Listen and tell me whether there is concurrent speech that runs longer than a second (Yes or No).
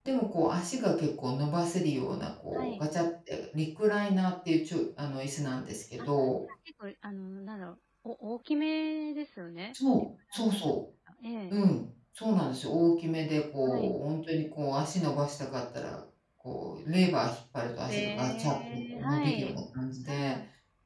Yes